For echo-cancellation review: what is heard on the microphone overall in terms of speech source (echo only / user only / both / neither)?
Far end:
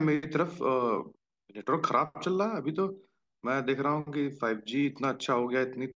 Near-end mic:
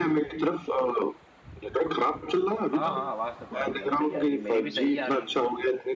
both